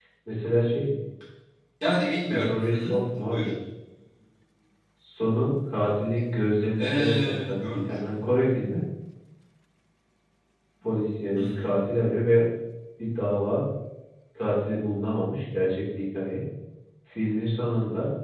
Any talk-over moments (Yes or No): Yes